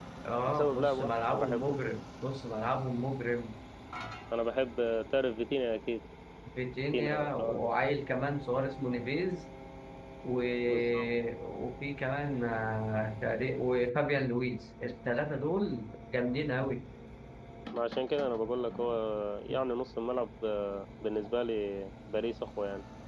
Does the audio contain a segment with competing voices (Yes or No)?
Yes